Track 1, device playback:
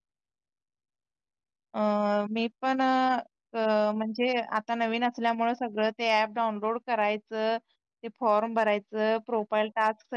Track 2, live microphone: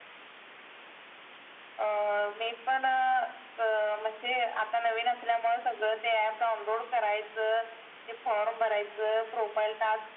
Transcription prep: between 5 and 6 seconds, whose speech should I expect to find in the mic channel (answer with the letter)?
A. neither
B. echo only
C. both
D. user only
B